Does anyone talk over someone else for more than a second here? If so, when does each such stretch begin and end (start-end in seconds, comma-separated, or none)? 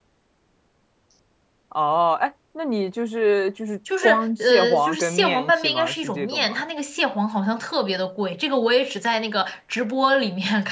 4.0-6.6